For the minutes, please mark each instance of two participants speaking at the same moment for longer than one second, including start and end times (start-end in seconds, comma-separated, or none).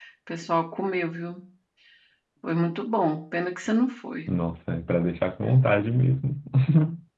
none